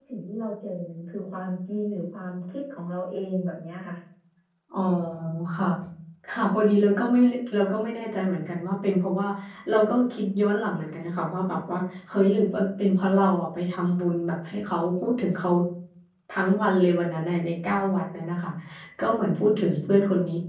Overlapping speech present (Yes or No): No